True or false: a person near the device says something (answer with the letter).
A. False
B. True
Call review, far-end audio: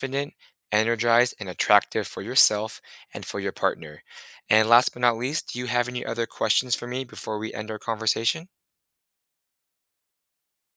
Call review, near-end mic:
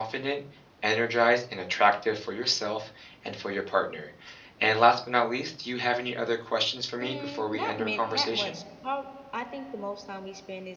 B